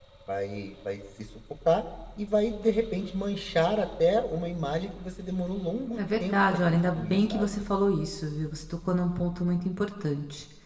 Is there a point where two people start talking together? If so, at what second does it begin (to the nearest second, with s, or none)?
6 s